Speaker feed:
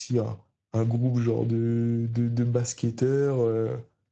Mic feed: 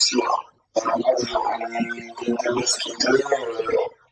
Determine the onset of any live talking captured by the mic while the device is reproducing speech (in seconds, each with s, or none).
none